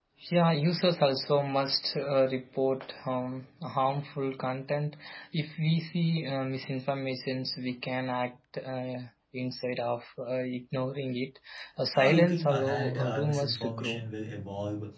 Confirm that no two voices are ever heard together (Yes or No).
No